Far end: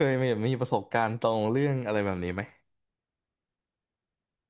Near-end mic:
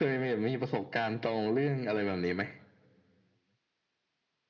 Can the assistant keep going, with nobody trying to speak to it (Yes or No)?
Yes